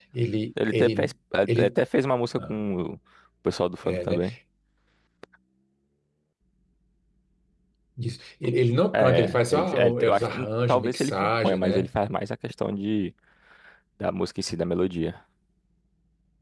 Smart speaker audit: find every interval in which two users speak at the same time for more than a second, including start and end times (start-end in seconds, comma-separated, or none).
8.9-11.9